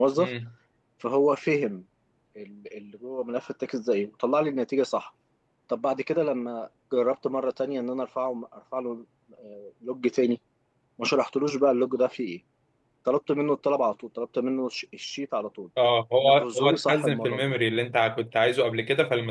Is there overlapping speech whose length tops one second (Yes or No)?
Yes